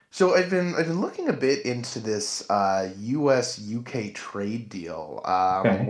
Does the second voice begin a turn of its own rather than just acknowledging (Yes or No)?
No